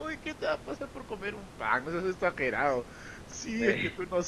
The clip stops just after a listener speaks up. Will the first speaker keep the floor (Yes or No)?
Yes